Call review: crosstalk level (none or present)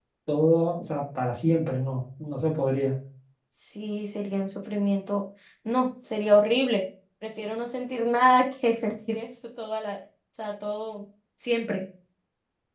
none